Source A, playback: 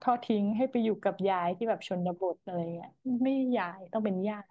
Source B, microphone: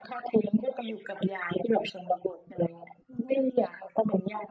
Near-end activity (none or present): none